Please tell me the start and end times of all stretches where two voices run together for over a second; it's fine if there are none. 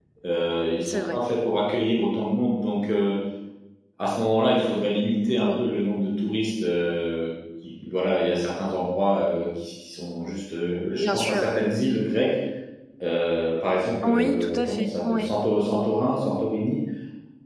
14.1-15.3

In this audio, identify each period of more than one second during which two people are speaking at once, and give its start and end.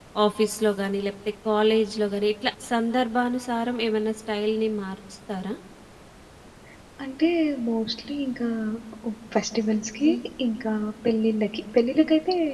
none

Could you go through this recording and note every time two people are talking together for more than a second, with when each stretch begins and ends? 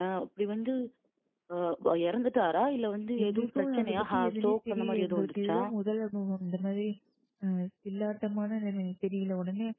3.2-5.6

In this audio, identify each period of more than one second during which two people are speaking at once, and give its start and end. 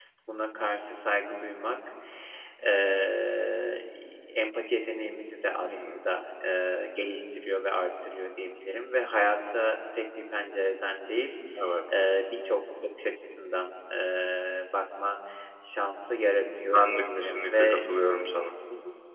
16.6-17.8

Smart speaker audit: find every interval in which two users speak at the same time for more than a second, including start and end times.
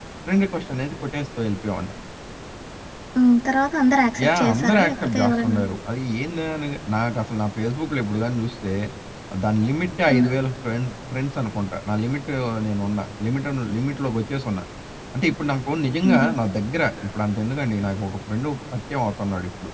4.2-5.6

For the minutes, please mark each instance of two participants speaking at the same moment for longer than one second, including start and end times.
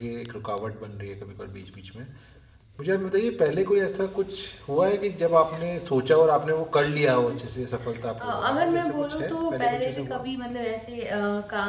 8.2-10.2

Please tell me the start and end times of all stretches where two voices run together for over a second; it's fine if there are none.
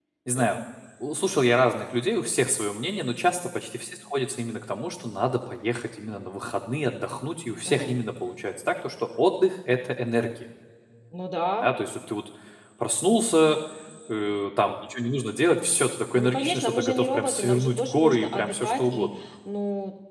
16.1-19.1

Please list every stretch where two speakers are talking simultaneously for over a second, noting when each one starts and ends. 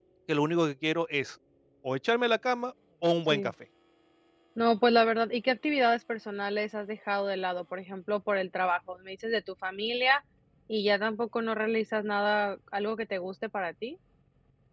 none

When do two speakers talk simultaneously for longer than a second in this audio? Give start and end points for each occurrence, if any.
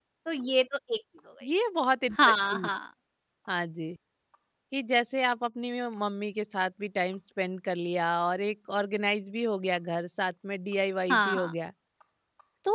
none

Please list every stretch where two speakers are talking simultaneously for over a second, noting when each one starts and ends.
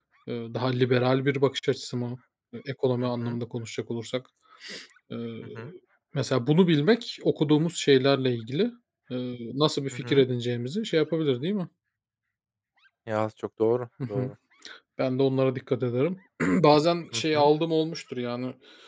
none

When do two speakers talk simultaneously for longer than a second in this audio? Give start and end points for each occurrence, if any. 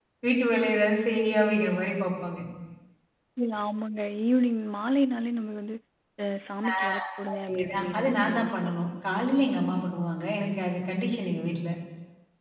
7.3-8.7

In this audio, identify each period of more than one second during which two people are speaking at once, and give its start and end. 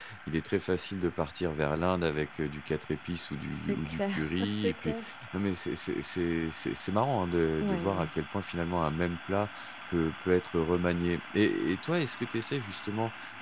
3.5-5.0

